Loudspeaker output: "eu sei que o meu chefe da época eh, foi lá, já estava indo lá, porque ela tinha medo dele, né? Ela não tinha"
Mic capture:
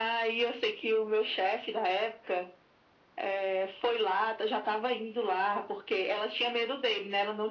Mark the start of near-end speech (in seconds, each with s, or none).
none